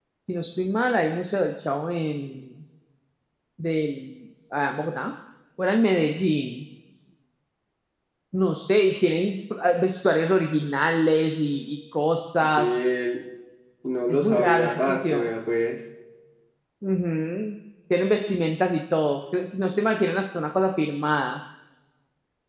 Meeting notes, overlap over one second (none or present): present